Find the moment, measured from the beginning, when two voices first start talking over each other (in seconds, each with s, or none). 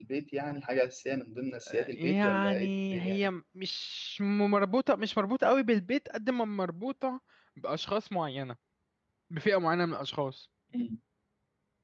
1.7 s